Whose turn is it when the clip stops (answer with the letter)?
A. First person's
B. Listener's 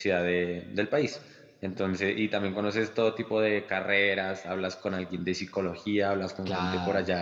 A